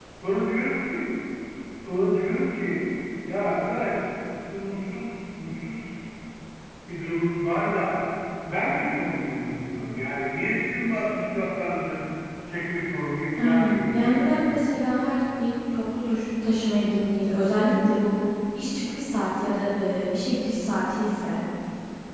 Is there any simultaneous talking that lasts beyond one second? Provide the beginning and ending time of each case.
13.4-14.7

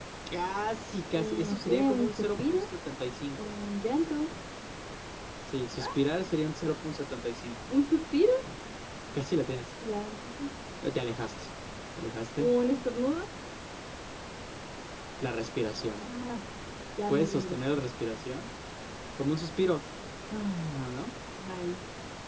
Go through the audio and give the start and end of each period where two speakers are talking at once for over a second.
1.1-2.6

